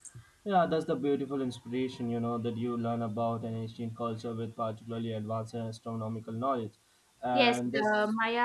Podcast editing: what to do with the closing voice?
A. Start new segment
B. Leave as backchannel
A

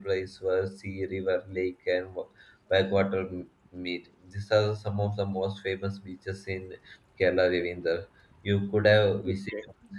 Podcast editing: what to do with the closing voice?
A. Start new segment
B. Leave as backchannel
A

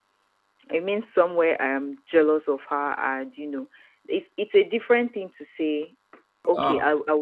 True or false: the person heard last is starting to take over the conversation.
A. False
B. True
A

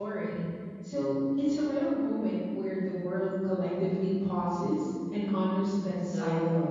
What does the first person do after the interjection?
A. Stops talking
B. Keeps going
A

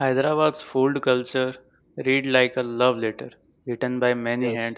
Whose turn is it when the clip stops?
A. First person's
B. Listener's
A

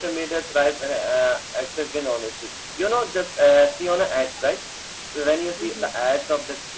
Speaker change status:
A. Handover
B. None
B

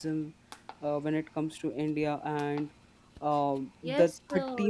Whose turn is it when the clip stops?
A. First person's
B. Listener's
B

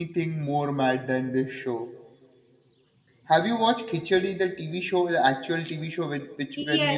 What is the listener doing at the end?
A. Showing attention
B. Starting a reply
B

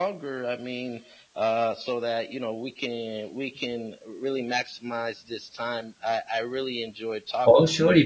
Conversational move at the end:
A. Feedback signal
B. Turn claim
B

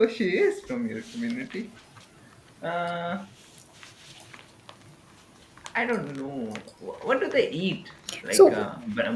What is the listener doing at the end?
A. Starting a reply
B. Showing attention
B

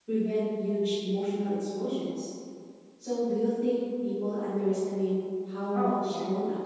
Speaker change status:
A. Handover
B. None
A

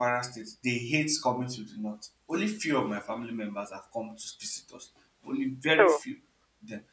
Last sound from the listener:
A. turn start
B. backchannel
B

